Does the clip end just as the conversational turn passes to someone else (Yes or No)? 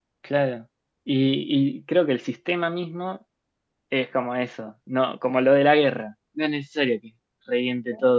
No